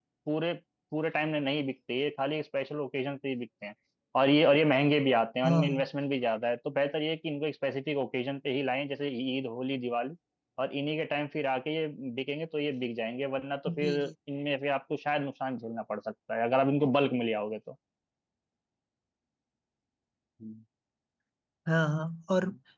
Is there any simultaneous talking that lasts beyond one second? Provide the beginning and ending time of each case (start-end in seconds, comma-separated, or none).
none